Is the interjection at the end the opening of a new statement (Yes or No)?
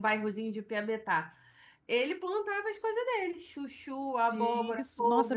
Yes